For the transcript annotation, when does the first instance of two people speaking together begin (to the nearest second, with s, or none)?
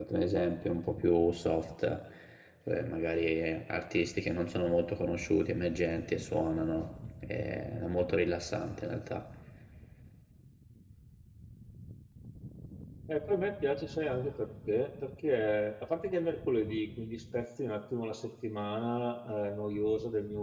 none